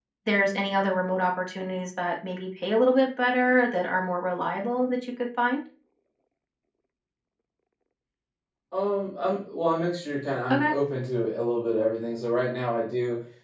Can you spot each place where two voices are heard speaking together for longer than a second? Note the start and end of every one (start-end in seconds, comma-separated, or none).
none